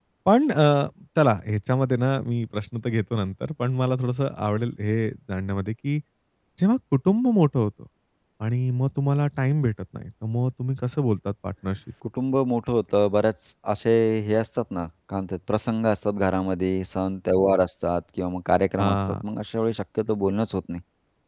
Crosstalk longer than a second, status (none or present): none